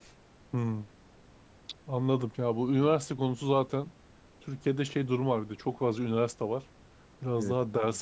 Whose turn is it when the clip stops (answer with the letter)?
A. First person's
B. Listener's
A